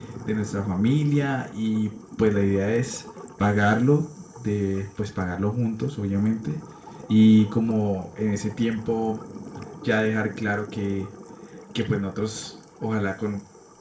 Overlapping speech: No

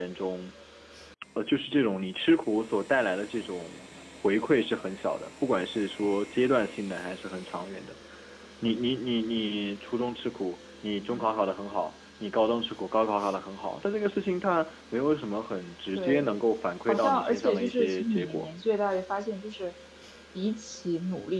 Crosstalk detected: Yes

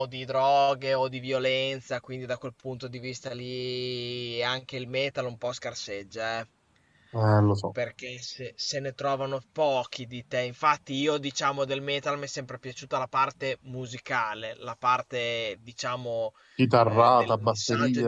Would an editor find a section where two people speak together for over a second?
Yes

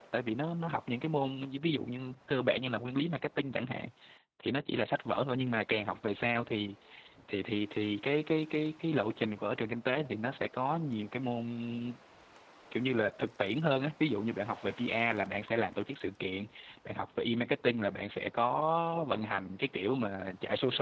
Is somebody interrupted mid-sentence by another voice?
No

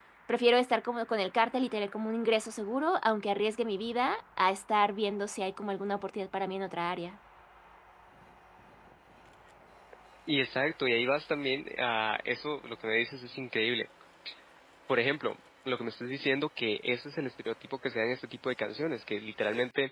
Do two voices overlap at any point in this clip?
No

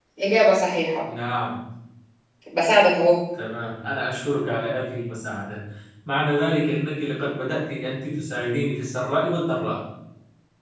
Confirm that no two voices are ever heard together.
Yes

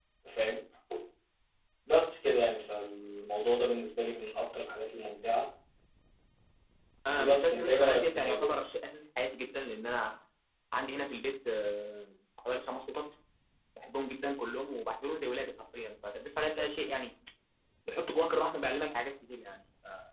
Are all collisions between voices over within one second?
No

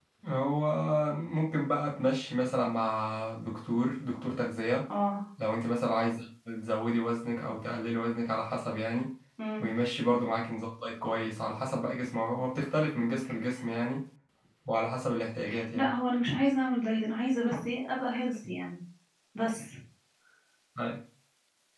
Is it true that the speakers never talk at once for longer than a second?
Yes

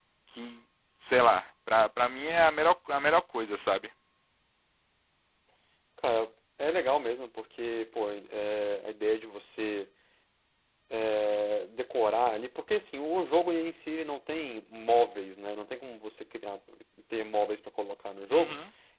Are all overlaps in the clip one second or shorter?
Yes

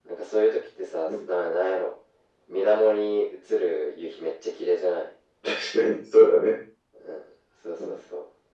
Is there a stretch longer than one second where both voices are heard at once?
No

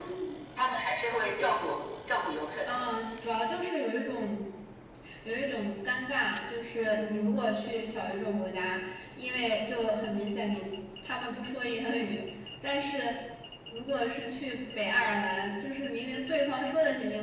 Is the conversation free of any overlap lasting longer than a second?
Yes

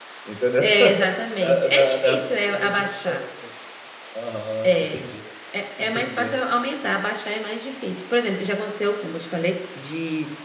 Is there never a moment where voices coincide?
No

